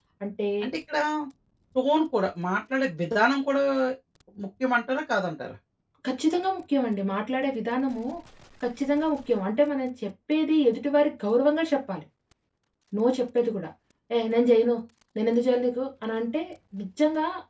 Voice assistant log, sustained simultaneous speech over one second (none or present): none